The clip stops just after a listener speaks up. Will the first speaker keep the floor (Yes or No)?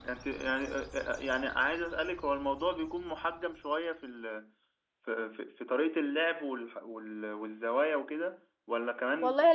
No